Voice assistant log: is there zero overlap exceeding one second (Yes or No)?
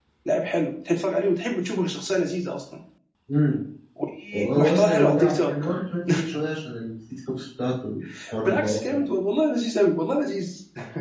No